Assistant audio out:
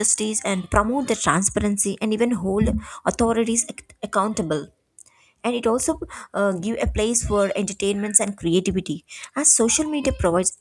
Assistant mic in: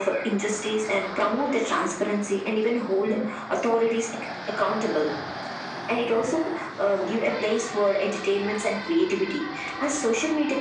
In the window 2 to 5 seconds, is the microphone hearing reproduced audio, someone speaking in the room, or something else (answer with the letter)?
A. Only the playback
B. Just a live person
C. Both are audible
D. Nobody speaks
A